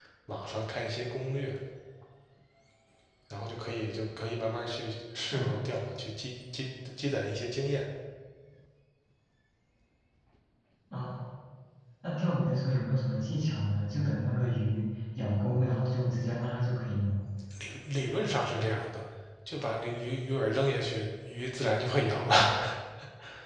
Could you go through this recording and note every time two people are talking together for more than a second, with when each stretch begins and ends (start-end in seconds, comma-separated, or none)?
none